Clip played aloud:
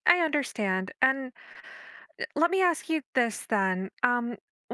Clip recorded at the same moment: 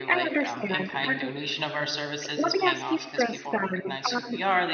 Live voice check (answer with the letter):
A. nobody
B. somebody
B